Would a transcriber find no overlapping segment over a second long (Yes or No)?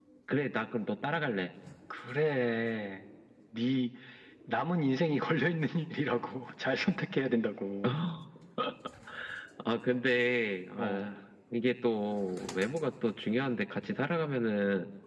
Yes